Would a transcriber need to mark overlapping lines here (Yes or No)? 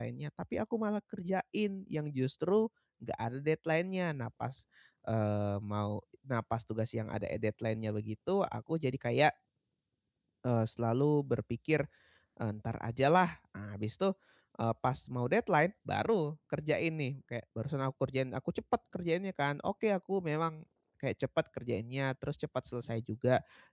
No